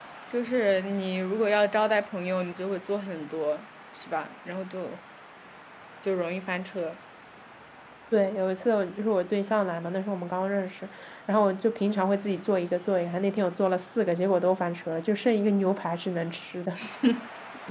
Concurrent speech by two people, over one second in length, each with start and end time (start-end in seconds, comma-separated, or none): none